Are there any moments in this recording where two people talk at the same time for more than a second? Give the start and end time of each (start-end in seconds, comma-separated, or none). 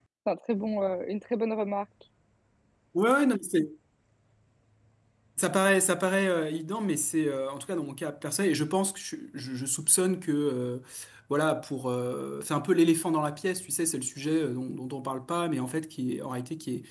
none